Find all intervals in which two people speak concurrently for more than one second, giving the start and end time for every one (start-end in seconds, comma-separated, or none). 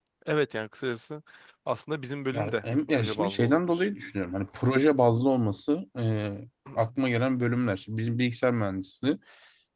2.3-3.9